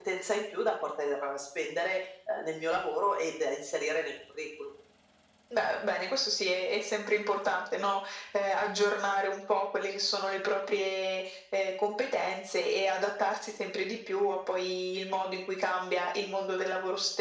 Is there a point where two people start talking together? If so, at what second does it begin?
none

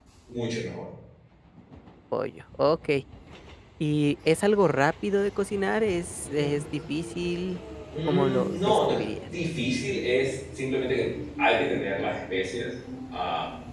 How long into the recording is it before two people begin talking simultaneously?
7.9 s

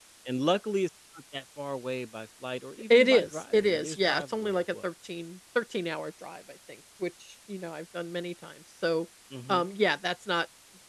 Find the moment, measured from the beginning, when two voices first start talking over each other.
2.9 s

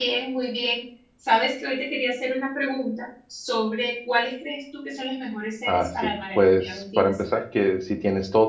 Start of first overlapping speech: 5.7 s

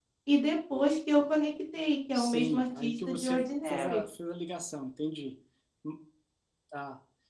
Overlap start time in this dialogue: 2.1 s

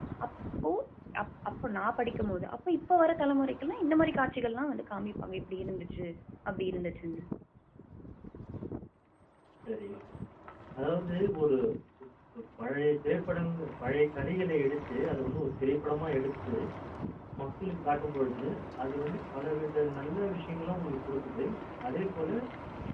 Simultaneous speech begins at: none

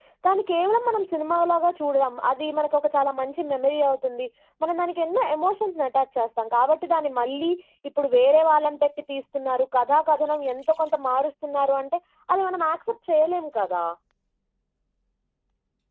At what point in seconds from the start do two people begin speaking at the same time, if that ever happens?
none

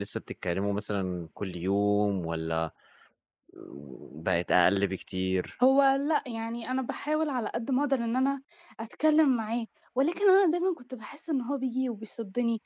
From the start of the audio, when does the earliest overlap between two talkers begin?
none

